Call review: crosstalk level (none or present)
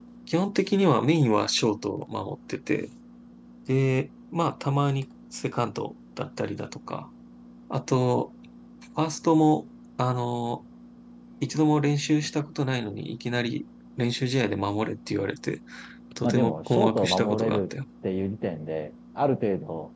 present